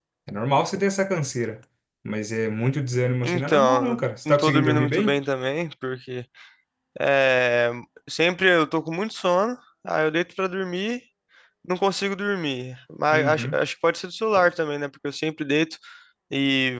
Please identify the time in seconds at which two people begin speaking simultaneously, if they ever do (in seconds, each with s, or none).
3.2 s